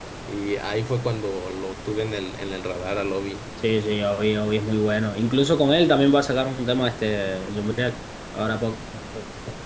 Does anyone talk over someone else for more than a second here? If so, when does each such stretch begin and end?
none

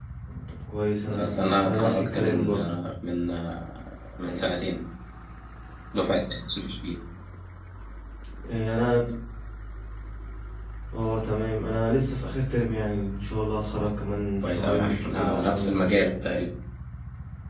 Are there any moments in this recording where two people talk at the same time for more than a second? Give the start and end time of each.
1.0-2.5, 14.4-16.1

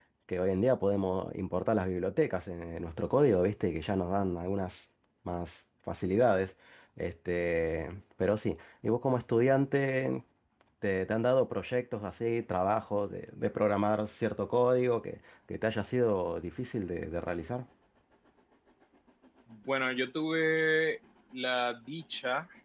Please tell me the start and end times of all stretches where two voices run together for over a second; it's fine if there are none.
none

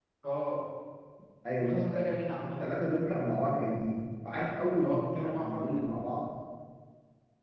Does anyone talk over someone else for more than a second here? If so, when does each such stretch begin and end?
4.8-6.0

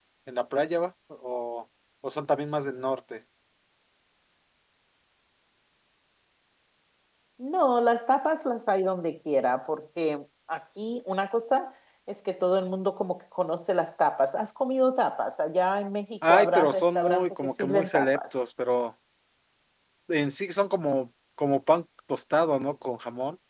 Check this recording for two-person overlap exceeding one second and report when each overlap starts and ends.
16.3-18.2

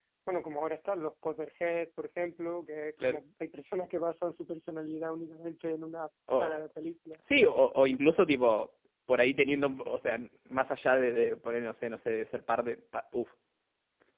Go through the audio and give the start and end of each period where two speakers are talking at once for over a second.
none

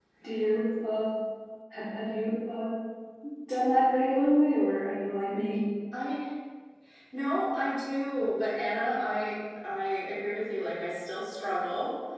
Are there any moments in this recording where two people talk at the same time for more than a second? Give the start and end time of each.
none

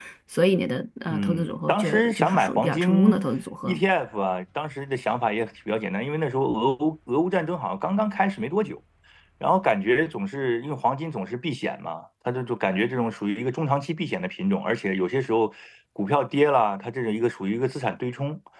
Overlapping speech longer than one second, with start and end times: 1.1-3.3

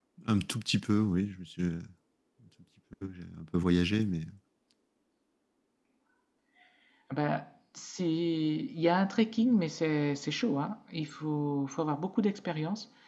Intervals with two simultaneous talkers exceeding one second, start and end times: none

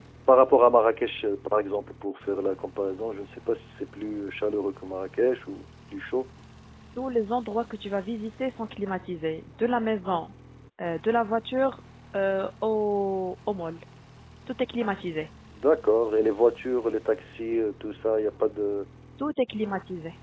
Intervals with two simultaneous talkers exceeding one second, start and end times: none

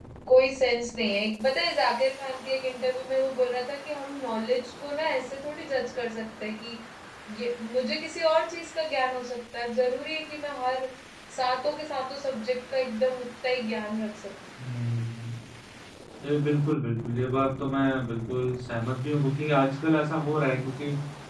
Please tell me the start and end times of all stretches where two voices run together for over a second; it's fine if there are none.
none

